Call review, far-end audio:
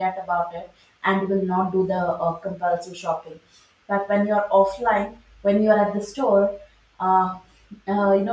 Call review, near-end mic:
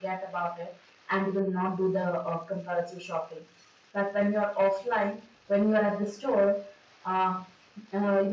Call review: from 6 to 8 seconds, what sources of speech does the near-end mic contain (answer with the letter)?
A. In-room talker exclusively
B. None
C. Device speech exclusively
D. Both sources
C